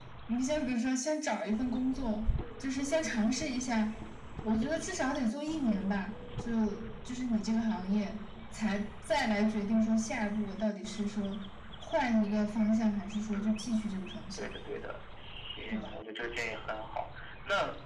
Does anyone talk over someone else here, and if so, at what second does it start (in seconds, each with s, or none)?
13.3 s